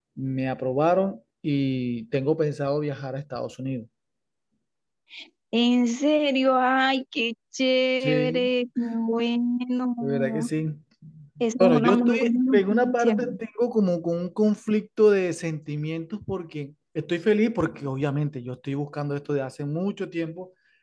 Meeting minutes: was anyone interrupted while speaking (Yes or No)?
Yes